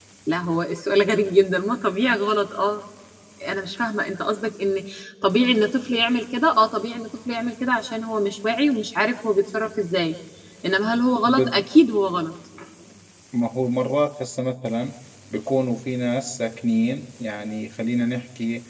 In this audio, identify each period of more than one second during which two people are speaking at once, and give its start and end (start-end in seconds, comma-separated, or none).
none